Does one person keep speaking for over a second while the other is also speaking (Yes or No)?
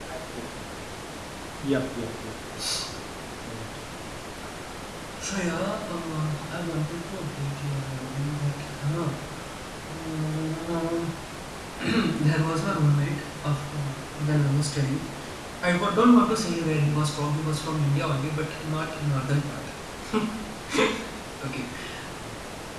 No